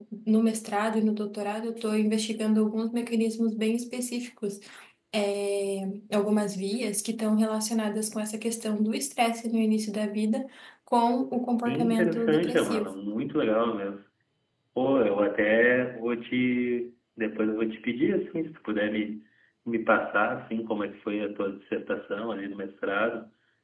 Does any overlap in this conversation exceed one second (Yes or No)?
Yes